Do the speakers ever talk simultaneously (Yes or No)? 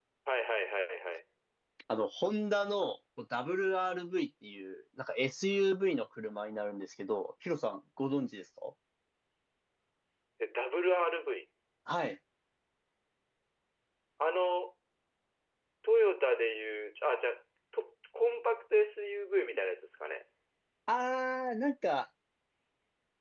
No